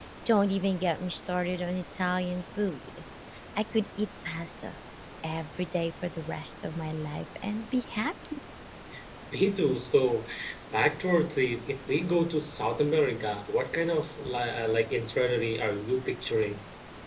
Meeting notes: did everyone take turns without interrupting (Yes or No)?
Yes